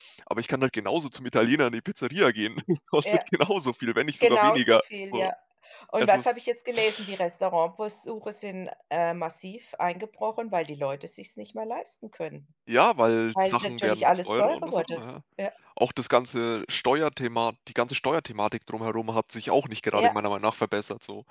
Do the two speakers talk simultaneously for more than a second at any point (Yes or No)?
Yes